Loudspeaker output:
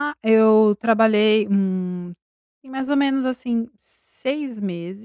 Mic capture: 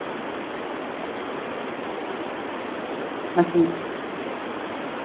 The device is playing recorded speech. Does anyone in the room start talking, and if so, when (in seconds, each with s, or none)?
3.4 s